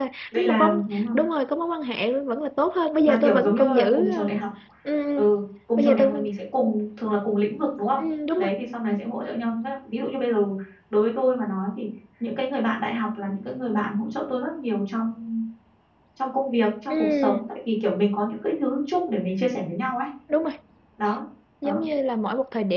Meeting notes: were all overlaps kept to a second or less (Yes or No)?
No